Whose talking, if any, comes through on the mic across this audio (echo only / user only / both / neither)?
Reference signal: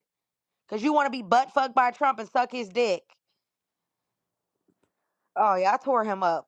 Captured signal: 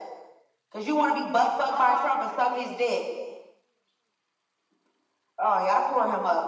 both